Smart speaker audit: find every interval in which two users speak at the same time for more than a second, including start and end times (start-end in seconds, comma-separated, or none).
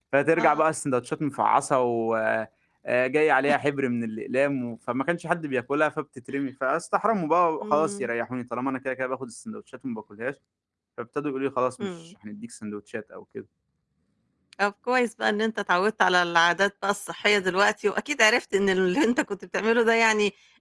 none